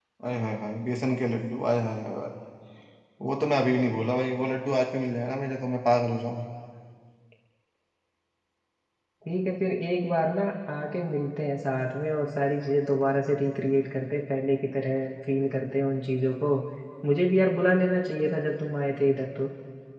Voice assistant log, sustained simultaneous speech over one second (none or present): none